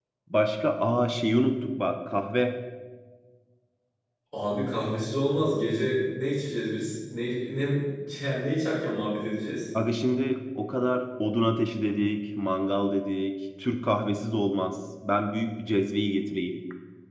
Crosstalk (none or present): none